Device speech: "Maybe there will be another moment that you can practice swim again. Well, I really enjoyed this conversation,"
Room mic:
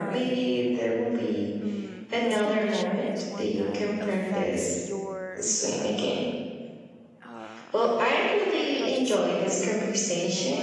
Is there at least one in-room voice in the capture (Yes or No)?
Yes